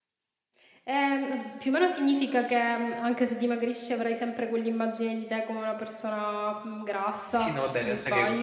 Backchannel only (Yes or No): No